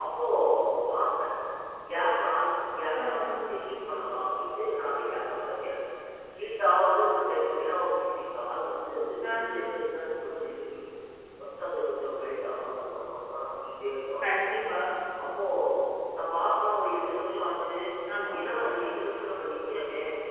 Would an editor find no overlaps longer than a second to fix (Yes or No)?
Yes